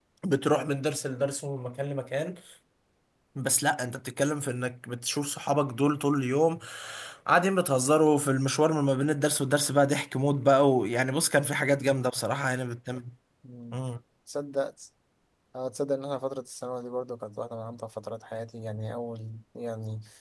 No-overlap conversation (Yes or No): Yes